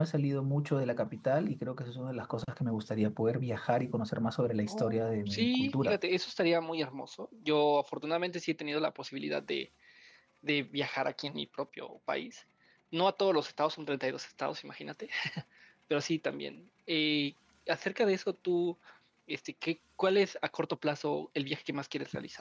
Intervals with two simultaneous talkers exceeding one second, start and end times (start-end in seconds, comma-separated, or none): 4.7-6.0